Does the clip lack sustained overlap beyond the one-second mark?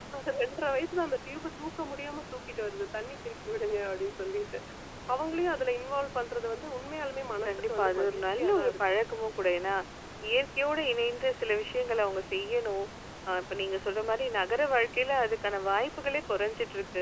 No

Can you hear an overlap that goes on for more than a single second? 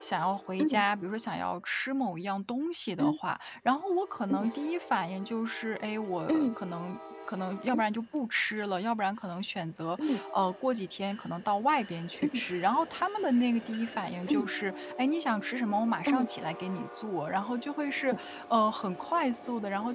No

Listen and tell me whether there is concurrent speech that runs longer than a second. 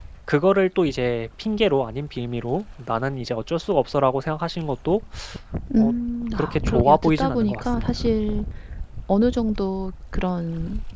Yes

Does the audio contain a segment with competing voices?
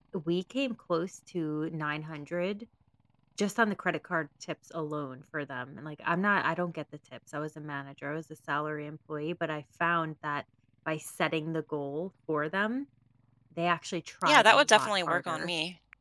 Yes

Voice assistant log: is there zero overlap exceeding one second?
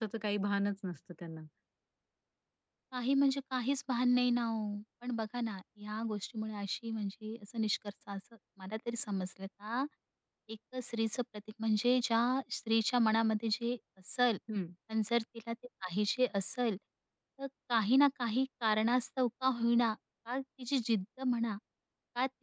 Yes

